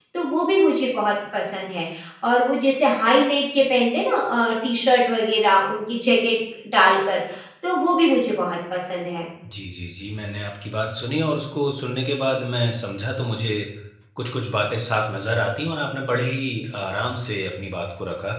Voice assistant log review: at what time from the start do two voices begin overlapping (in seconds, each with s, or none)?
none